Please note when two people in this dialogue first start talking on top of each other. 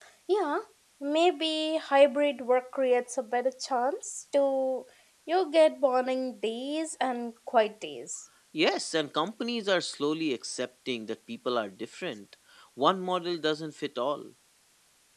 none

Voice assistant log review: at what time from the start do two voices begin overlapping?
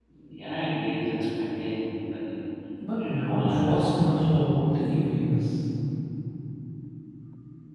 2.9 s

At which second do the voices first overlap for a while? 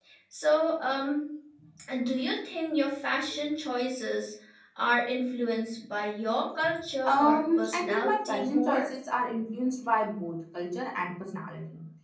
7.0 s

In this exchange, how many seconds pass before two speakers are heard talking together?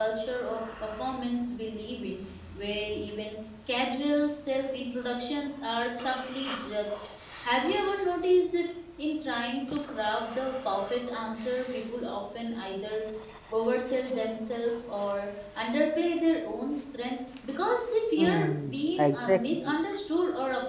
18.2 s

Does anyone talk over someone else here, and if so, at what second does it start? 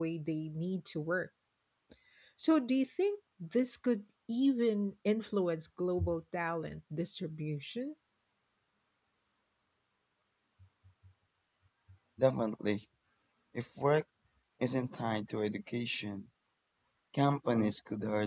none

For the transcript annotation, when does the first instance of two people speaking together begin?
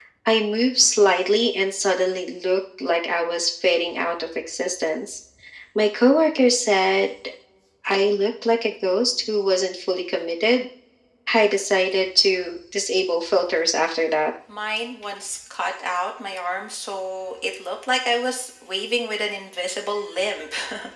none

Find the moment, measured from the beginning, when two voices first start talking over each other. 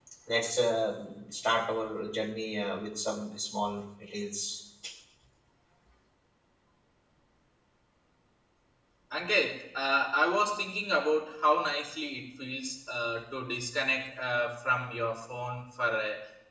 none

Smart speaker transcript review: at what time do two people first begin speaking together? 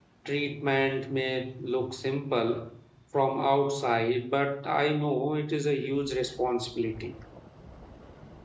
none

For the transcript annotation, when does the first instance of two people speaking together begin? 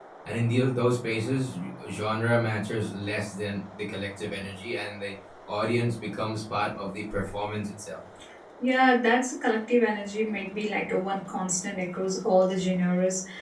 none

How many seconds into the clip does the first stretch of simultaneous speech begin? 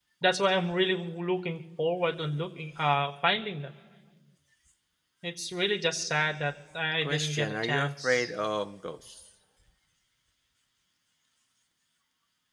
7.0 s

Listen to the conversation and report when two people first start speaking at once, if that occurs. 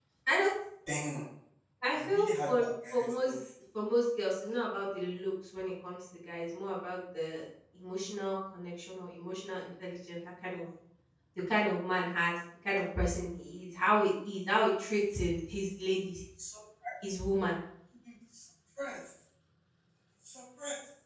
2.0 s

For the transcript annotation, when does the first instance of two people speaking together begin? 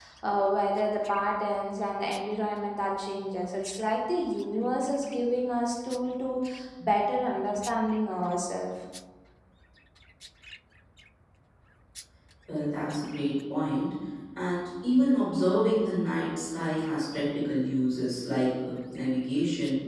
none

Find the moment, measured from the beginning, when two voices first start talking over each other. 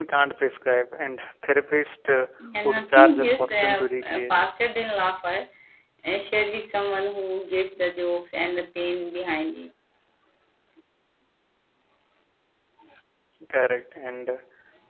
2.4 s

